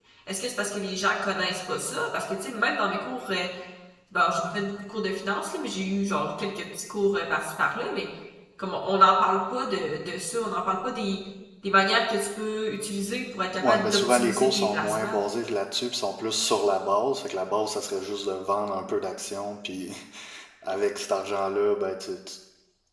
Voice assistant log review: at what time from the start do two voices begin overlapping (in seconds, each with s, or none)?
13.6 s